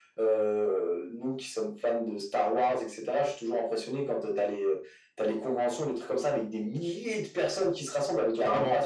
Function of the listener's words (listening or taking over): listening